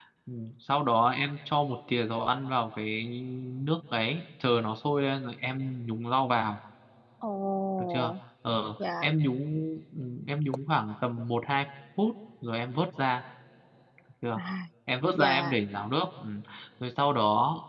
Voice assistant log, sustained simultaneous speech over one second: none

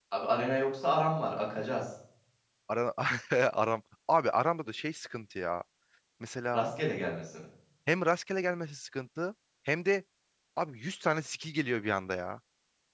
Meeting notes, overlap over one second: none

